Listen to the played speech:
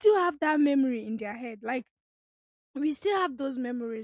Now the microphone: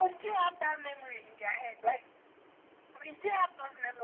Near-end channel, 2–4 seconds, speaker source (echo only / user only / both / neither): echo only